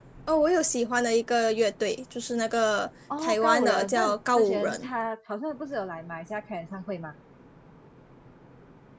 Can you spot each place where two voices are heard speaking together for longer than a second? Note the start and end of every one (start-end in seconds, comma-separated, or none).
3.2-4.9